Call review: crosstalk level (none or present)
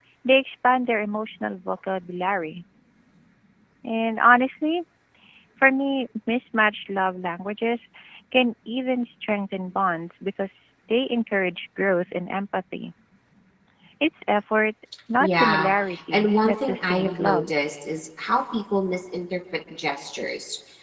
present